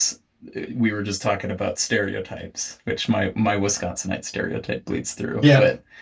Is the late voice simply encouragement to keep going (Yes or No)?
Yes